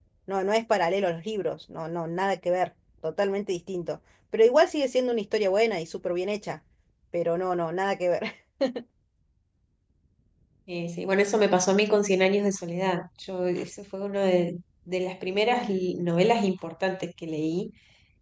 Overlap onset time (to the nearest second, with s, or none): none